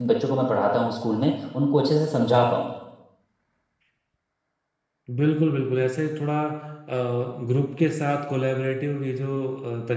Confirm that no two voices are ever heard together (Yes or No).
Yes